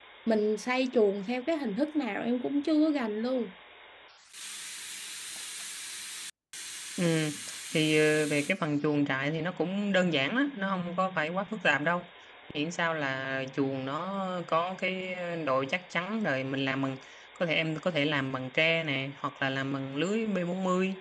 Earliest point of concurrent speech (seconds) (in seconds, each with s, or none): none